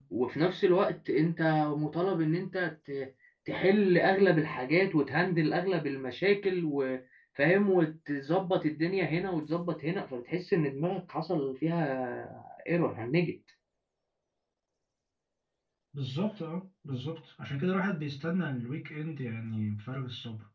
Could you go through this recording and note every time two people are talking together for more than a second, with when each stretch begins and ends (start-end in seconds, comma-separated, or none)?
none